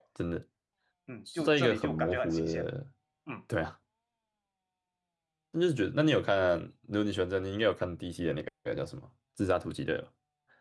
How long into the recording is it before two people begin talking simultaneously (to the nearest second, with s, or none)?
1 s